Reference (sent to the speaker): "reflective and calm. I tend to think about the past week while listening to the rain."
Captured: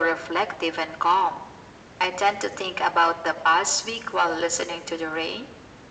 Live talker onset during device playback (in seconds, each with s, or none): none